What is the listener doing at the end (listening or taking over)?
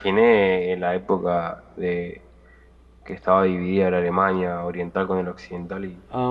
taking over